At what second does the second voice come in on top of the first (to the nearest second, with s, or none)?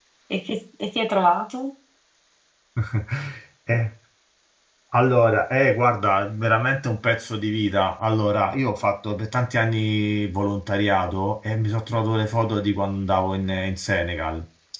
none